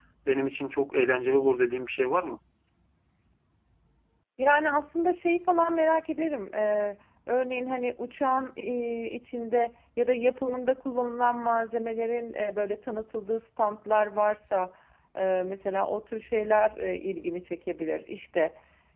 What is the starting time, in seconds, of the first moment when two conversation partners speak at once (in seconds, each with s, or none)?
none